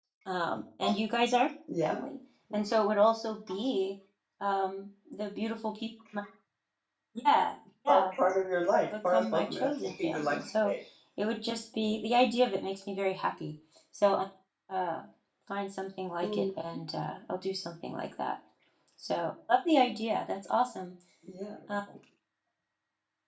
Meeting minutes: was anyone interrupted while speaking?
Yes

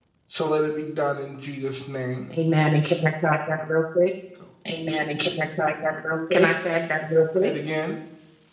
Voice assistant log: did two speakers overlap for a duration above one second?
No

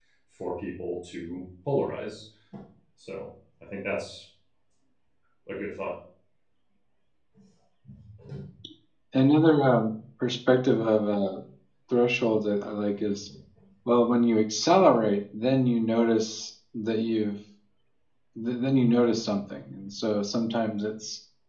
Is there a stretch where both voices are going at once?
No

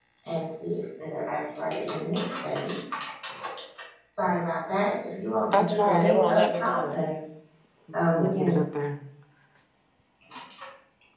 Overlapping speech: Yes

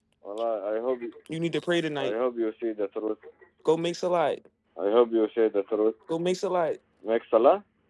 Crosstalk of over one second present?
No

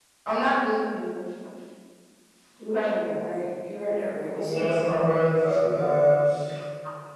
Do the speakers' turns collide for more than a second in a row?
No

